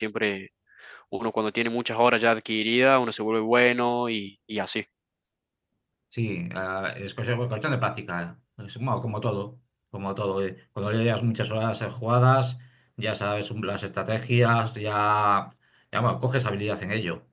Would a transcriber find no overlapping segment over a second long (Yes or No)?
Yes